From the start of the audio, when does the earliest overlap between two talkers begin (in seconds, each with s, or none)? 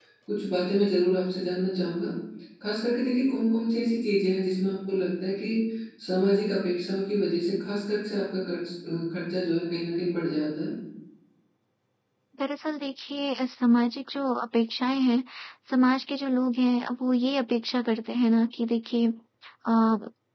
none